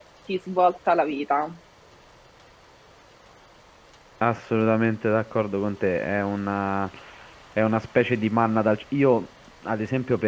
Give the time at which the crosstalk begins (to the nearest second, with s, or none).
none